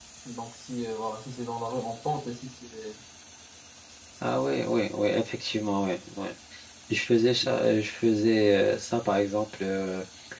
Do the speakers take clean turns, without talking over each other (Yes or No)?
Yes